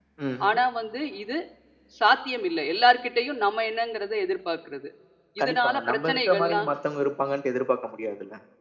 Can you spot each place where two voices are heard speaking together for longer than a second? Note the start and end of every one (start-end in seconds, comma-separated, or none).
5.4-6.7